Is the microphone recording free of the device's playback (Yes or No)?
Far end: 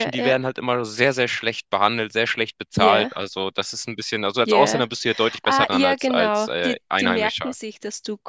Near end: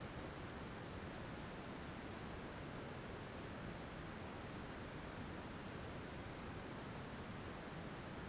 Yes